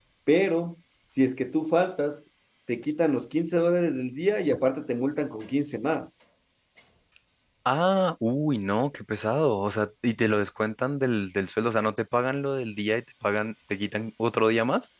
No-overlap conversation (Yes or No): Yes